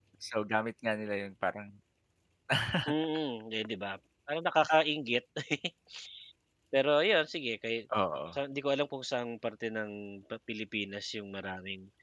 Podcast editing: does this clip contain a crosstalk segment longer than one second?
No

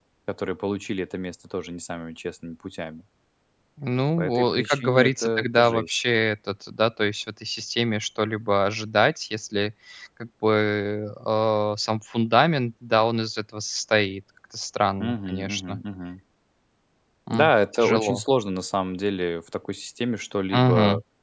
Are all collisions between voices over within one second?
No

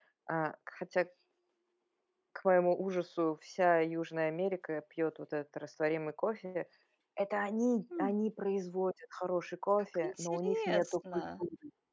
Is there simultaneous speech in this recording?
Yes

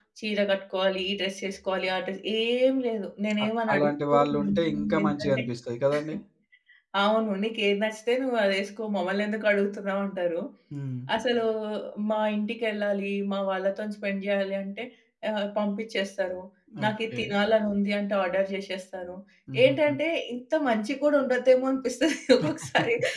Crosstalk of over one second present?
Yes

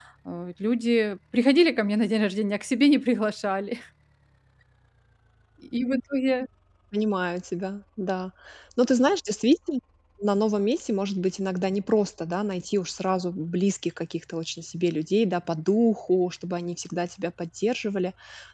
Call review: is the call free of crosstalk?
Yes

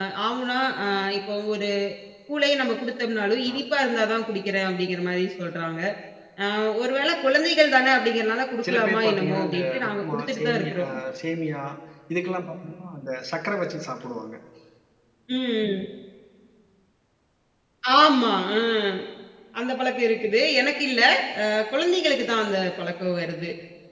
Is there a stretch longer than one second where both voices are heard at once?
Yes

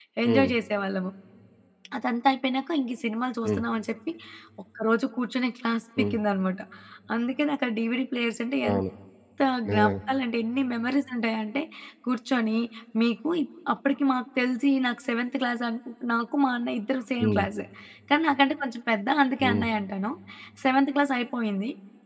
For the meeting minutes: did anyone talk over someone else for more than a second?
No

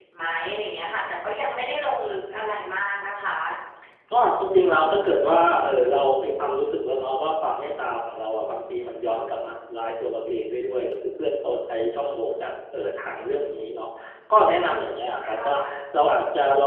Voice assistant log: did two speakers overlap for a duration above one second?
No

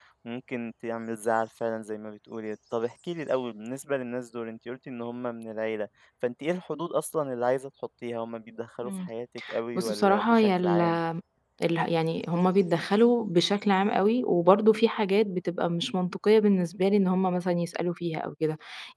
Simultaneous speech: Yes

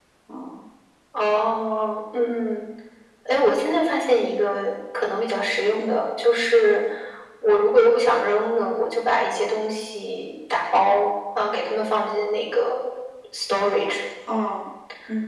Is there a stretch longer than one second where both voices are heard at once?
No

